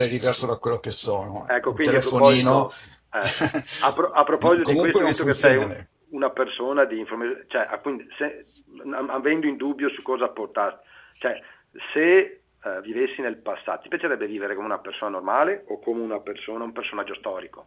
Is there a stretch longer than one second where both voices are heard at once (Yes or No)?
Yes